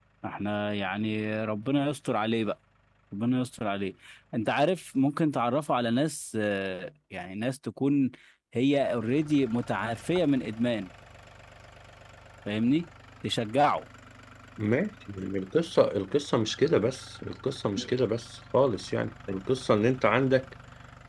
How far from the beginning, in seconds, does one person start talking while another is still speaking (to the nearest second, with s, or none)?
none